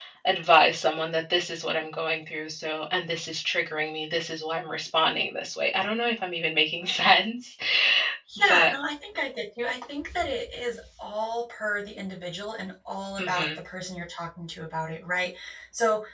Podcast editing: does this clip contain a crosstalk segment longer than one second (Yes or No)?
No